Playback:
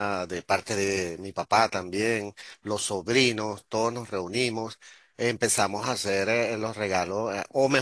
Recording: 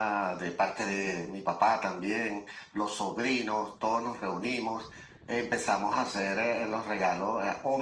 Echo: present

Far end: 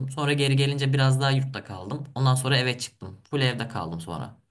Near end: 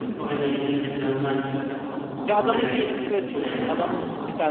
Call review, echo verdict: present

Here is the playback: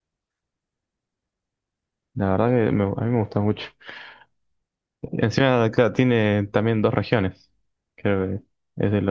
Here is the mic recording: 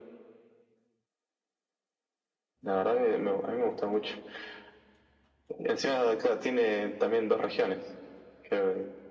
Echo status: present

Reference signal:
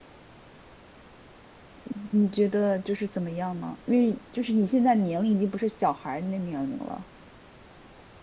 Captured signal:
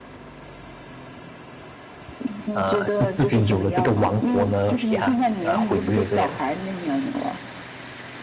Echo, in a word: present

